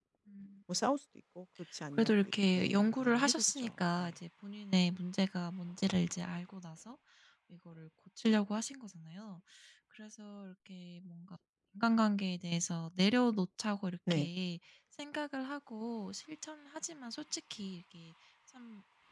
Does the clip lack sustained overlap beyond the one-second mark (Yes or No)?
No